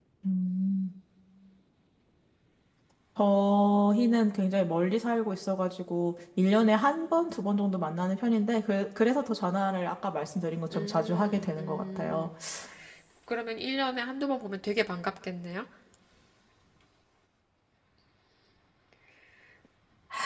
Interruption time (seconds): 10.7 s

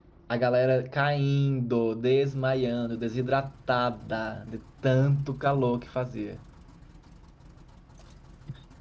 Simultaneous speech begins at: none

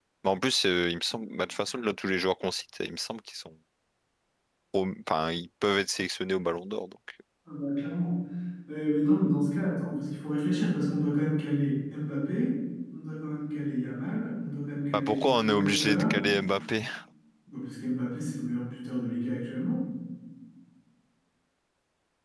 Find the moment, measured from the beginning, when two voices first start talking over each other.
14.9 s

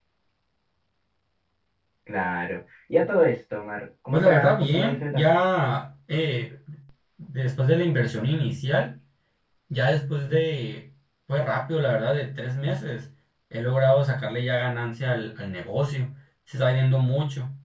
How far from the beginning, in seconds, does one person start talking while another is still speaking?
4.1 s

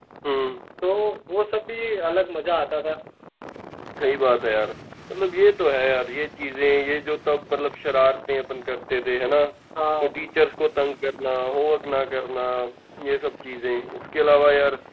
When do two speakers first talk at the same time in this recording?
none

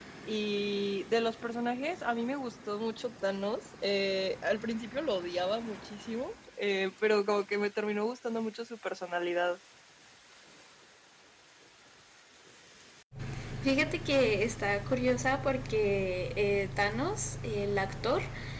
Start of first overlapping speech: none

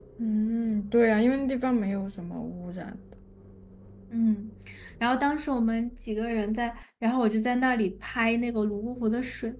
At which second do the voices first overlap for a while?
none

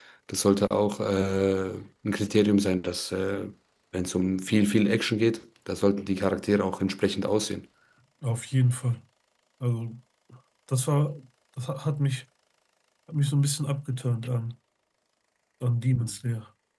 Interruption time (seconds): none

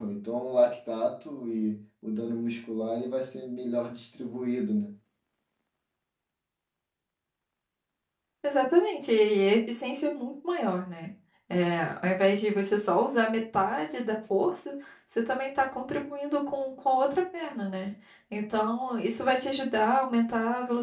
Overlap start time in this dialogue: none

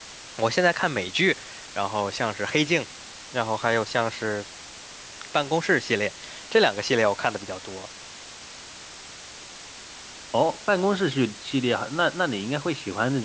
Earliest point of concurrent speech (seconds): none

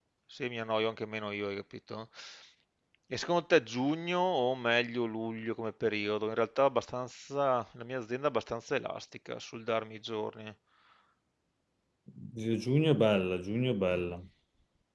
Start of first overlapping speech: none

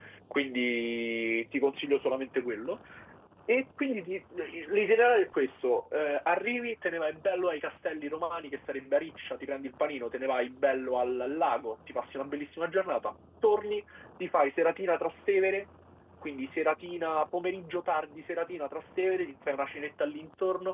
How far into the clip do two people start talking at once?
none

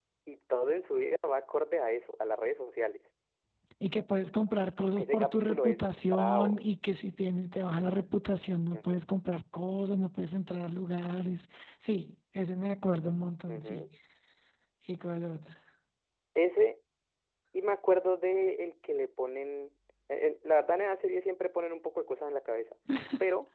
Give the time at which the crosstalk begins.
5.0 s

